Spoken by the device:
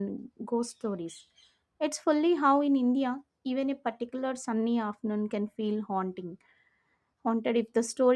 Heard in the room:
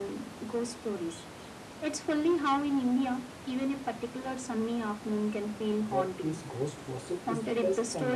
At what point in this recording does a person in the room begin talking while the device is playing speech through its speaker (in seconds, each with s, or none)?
5.8 s